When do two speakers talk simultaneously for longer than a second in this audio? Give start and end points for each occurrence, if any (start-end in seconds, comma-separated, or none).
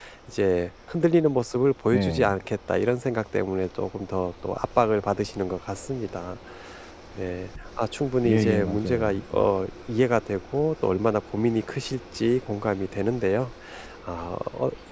8.2-9.5